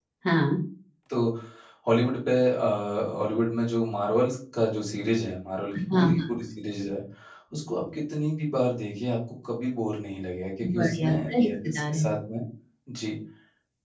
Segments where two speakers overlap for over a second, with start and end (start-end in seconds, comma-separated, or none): 10.8-12.0